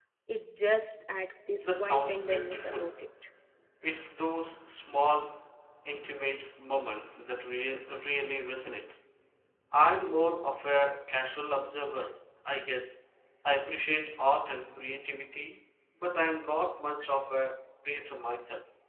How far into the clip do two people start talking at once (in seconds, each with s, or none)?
1.6 s